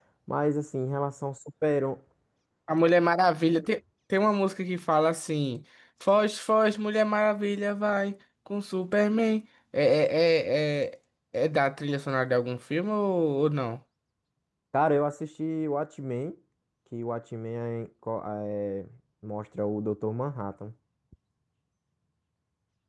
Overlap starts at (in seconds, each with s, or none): none